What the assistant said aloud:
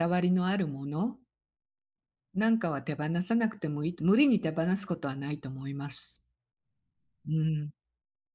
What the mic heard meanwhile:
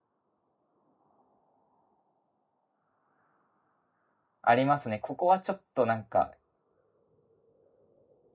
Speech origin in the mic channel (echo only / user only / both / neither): user only